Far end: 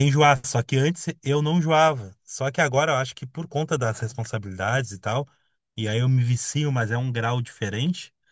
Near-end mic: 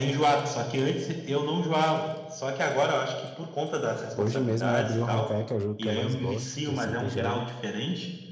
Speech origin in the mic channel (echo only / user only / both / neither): both